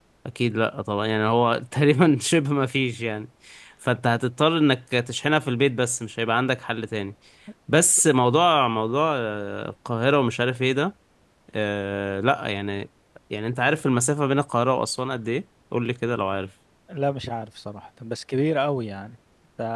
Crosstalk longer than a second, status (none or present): none